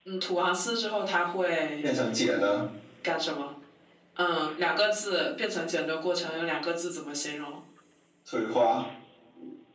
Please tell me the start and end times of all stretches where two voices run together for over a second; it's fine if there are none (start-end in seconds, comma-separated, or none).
none